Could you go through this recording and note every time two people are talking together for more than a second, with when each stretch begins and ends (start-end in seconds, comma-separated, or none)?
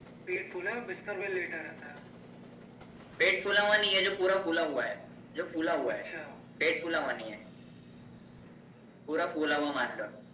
none